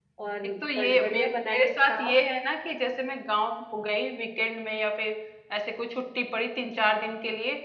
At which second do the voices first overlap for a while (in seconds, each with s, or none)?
0.6 s